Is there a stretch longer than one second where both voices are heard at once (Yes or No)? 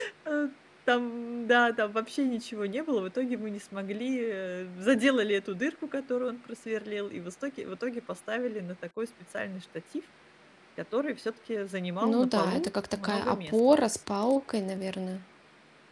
Yes